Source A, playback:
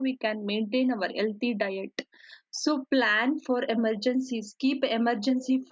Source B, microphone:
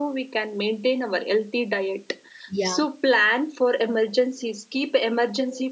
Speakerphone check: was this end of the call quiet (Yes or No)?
No